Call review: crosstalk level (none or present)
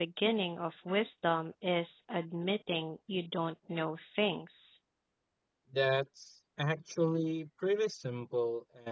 none